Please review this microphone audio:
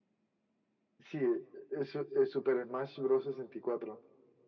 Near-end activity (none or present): none